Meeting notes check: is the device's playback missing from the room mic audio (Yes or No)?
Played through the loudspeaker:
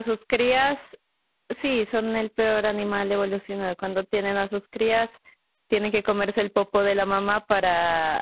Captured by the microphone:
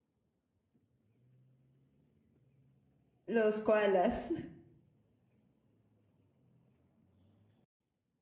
Yes